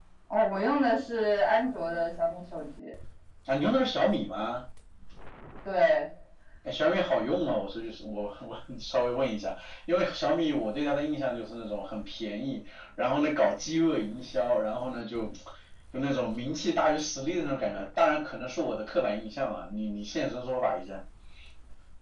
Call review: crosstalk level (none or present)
none